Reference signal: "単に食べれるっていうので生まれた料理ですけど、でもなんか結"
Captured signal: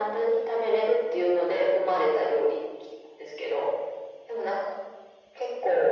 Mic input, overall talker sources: echo only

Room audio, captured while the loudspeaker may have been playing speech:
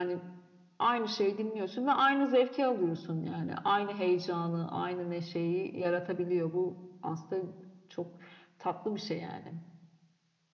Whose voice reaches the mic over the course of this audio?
echo only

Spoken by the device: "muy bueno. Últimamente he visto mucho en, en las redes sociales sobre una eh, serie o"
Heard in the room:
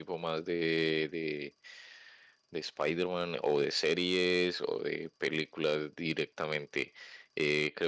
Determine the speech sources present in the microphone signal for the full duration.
user only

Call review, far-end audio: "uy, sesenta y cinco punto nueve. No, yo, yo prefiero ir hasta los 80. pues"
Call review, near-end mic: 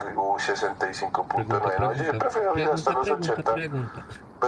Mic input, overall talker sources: both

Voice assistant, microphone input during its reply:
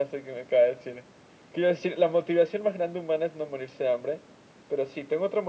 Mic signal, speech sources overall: echo only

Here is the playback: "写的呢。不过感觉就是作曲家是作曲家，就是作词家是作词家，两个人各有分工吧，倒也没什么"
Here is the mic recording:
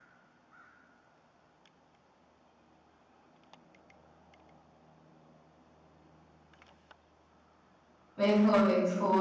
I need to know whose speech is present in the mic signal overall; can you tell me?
user only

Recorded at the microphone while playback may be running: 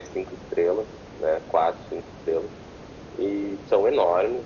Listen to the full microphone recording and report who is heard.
echo only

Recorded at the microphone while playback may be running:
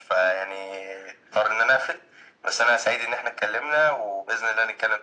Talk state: echo only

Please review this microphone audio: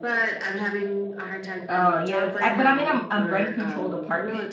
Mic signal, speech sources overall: both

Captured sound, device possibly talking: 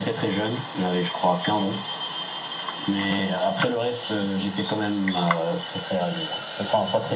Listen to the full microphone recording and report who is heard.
echo only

